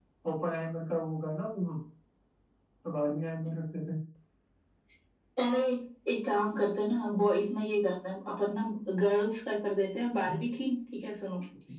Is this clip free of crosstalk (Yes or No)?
Yes